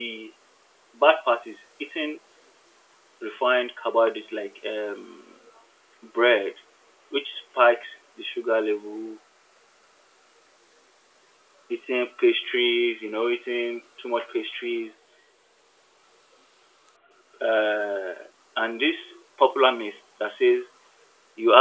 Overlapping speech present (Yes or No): No